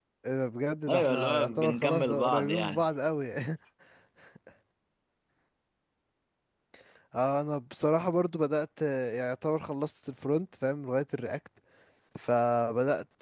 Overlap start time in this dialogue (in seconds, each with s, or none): 0.9 s